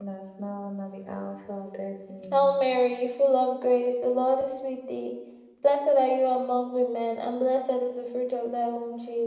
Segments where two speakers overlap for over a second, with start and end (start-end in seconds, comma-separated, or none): none